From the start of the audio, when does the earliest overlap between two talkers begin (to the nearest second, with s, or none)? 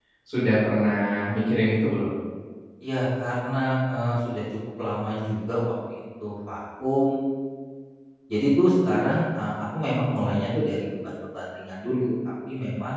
none